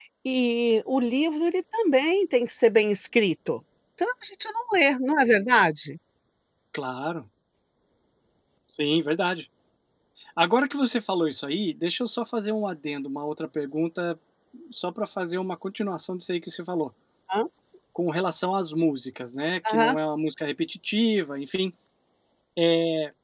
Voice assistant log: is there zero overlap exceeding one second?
Yes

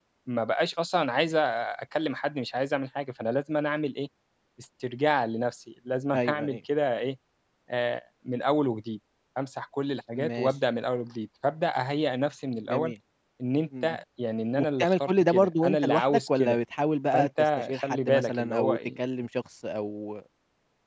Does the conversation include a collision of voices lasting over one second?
Yes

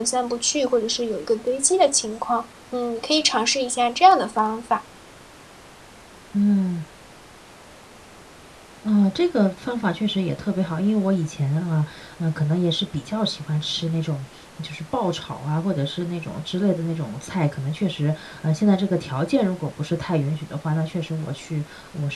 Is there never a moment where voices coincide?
Yes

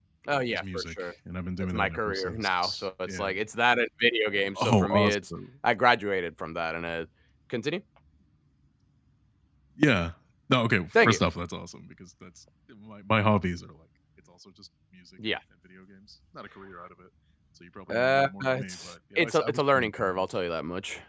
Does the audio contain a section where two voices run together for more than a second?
Yes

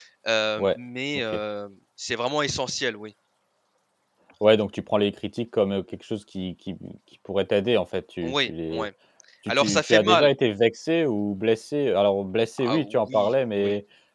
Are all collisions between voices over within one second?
No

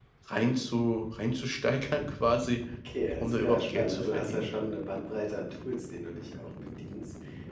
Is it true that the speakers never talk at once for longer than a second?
No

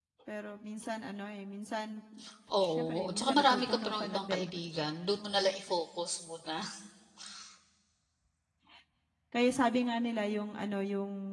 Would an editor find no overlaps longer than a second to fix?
No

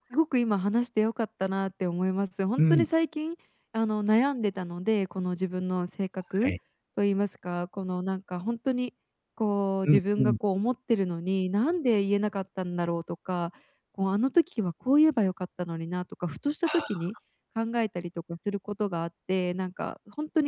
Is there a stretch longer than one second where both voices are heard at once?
No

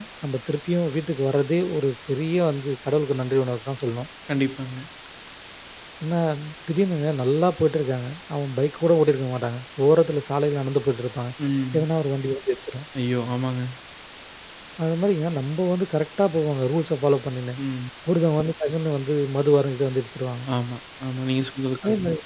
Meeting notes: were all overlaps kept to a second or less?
Yes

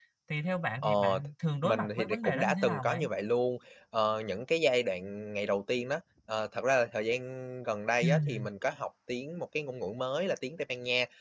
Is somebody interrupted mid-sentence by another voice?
Yes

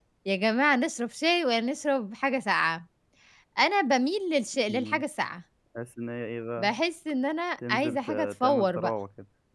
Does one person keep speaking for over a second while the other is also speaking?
Yes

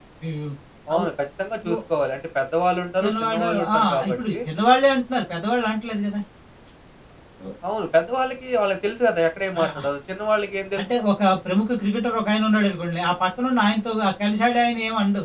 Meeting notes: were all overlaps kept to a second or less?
No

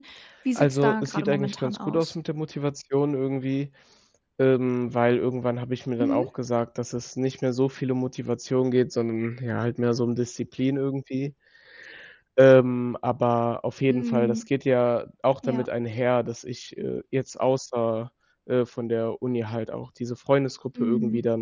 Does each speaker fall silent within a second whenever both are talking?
No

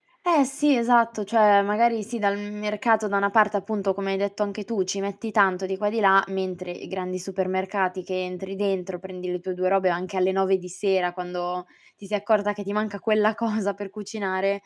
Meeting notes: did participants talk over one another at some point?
No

